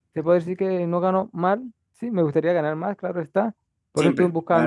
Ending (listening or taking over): listening